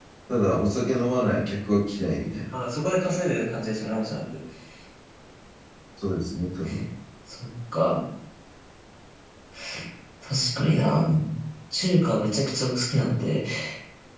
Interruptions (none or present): none